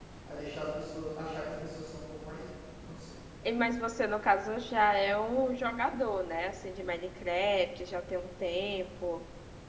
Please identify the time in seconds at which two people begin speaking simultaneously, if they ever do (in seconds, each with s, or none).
none